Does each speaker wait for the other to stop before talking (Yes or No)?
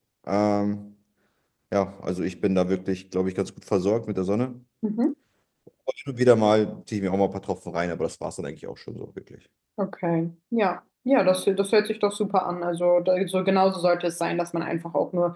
Yes